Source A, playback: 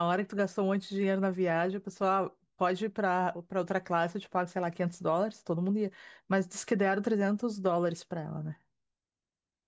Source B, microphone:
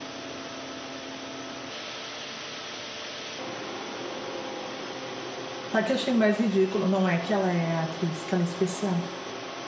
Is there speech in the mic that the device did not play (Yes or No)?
Yes